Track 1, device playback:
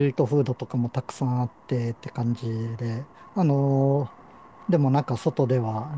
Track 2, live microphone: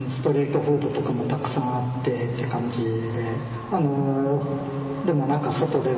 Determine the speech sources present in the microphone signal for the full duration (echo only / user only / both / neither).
echo only